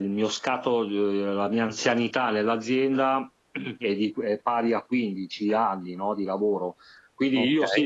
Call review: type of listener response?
listening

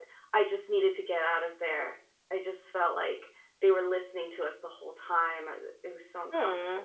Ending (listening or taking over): taking over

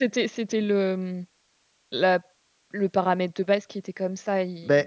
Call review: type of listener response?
listening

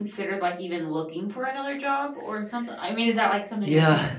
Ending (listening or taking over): taking over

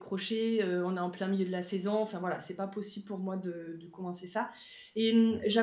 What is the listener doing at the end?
listening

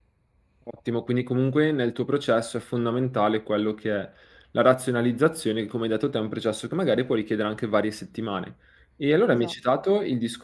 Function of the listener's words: listening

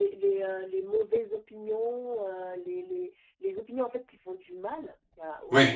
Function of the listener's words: listening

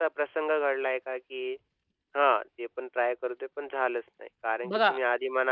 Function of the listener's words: listening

